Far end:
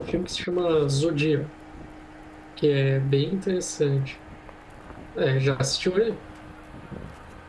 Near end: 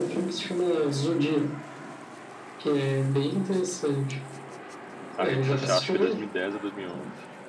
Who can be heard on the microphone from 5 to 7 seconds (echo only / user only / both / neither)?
both